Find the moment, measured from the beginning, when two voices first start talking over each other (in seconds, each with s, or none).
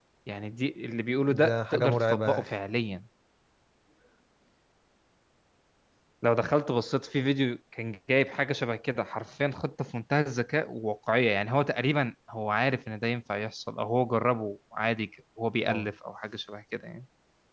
1.3 s